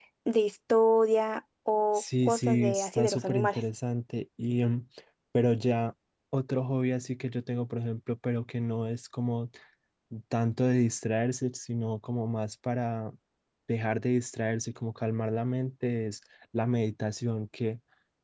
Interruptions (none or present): present